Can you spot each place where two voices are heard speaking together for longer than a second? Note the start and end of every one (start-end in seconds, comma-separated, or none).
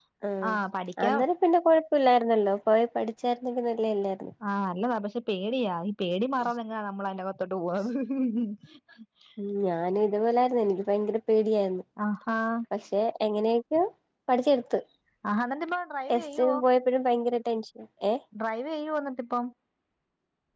none